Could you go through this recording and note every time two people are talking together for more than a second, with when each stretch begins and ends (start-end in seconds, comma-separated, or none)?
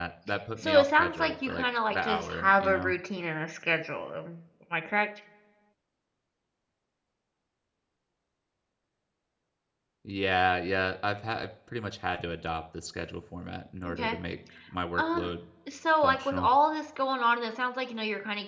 0.6-2.9